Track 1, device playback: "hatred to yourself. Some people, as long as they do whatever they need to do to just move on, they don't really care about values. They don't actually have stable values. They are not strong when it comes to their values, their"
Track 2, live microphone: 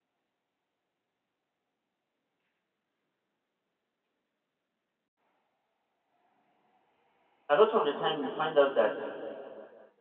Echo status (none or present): none